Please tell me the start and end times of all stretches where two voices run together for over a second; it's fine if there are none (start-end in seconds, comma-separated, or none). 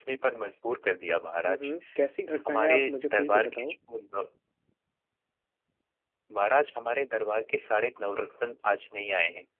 2.4-3.8